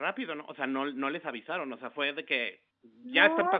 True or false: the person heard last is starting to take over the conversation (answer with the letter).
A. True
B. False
A